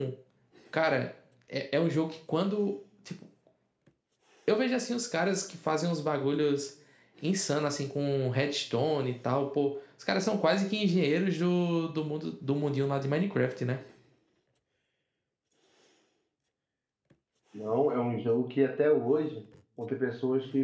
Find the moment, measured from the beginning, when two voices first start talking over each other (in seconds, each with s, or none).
none